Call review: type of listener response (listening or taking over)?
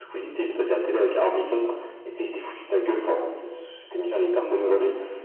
listening